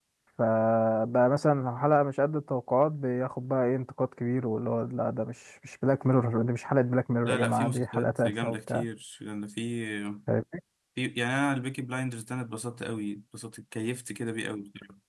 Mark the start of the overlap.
7.2 s

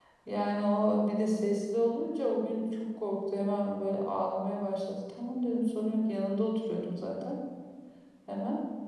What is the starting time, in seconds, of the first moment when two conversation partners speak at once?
none

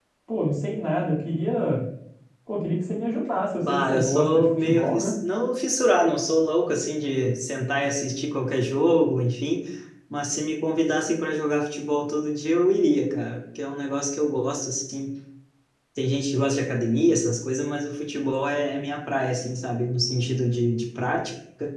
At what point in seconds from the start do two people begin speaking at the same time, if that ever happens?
3.6 s

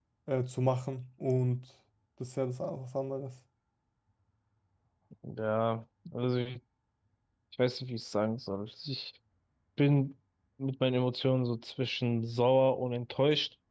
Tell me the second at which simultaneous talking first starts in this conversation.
none

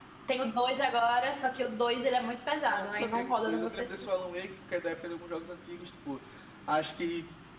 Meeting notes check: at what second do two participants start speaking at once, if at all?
2.7 s

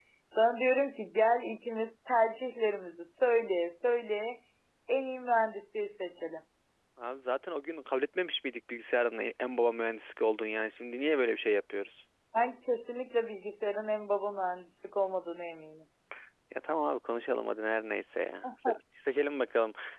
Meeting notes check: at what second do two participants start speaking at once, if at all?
none

